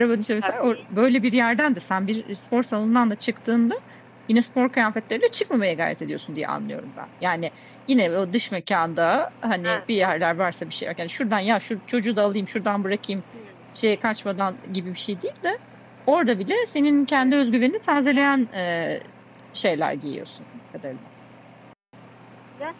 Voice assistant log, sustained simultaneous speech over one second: none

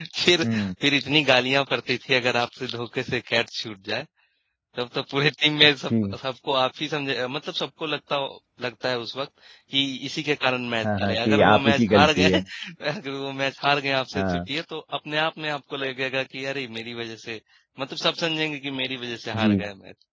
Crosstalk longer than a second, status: present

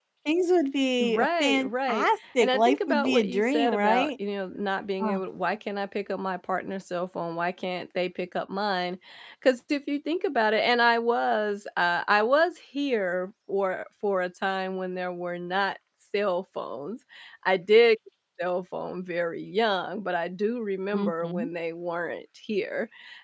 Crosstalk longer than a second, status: present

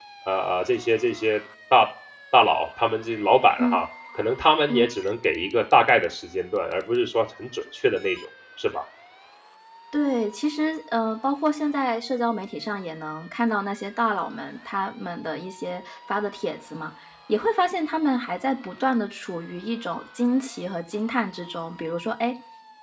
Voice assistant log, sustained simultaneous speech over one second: none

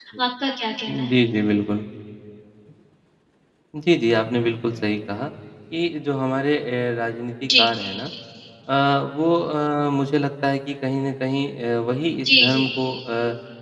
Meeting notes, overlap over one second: none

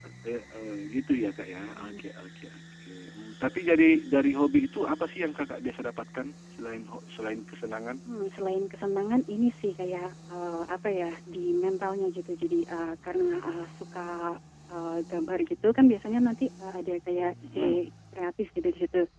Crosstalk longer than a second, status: none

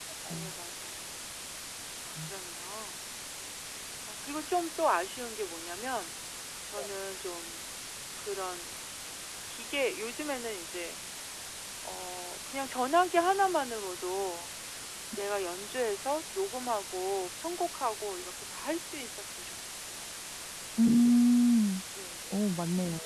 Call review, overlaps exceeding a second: none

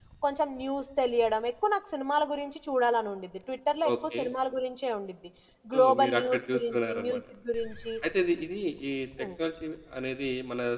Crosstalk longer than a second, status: present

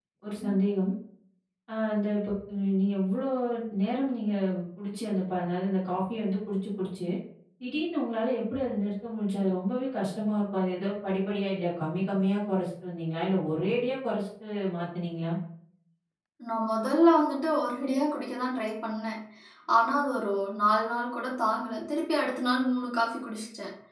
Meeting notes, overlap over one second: none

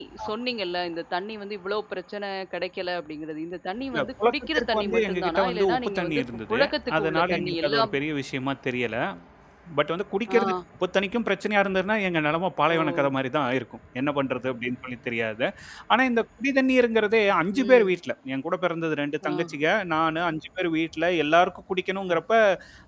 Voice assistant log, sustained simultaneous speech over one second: present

